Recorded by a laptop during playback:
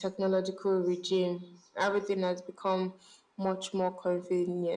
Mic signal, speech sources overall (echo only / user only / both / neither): echo only